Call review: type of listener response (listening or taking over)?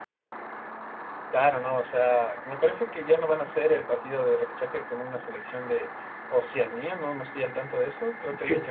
listening